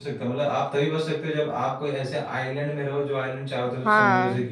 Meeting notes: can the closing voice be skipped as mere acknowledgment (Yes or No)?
No